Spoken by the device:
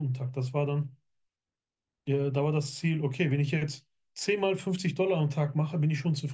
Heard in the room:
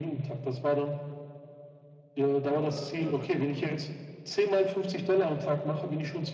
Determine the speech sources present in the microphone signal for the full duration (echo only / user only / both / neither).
both